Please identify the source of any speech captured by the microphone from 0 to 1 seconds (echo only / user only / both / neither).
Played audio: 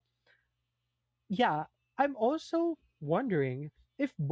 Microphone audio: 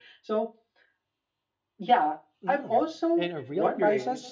echo only